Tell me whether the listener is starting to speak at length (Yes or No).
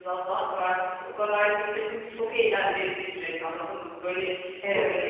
No